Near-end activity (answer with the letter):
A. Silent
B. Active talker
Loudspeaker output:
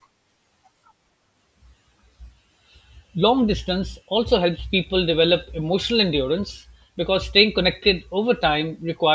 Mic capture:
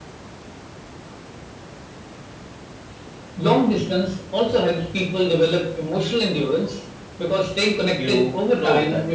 B